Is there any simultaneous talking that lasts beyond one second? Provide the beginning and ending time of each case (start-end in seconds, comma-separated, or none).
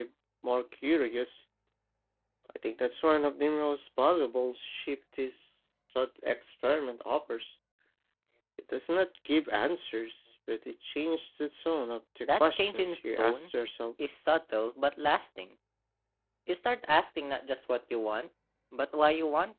12.2-13.5